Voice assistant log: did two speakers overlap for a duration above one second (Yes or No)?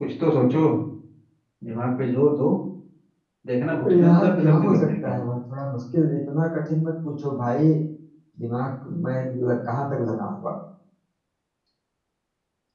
Yes